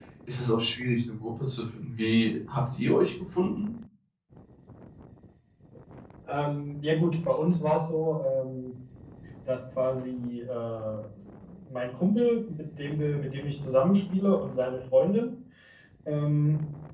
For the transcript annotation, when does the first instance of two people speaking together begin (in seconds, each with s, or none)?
none